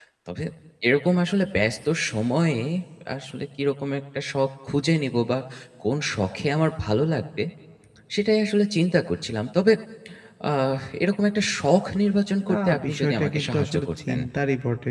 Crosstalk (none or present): present